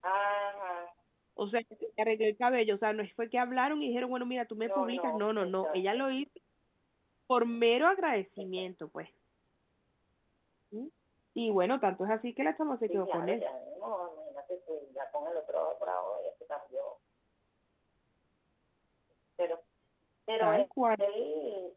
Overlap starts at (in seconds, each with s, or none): 4.6 s